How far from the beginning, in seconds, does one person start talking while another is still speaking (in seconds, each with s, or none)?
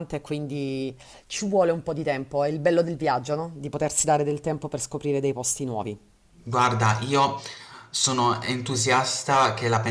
none